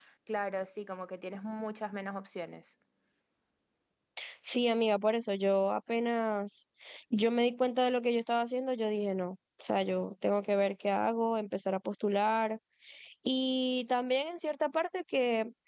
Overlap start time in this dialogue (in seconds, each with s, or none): none